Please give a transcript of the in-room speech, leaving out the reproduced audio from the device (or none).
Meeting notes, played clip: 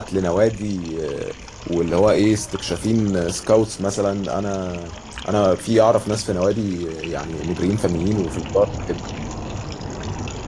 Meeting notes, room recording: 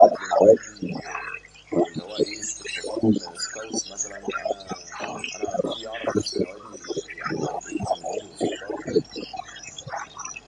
none